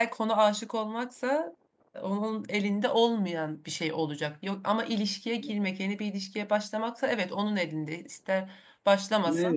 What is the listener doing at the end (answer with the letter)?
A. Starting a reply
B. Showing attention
A